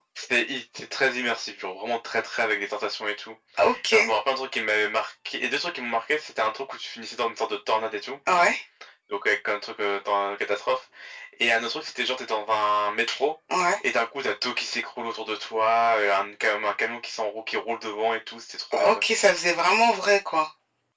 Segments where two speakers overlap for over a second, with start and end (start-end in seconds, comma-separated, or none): none